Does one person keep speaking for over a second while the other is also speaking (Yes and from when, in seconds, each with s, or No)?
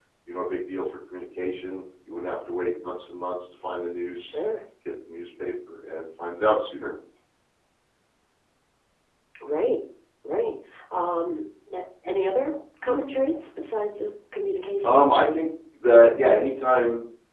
No